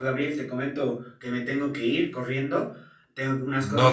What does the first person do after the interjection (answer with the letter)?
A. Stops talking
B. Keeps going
B